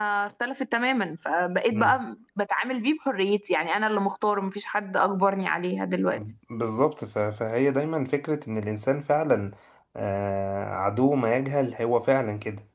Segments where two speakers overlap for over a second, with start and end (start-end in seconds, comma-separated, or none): none